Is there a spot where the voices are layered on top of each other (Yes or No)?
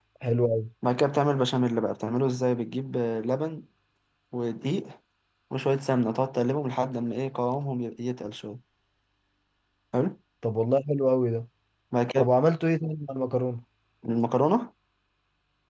No